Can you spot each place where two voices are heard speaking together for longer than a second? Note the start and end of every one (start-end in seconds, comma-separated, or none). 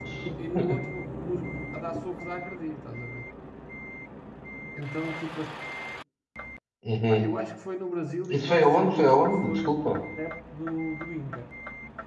8.3-9.7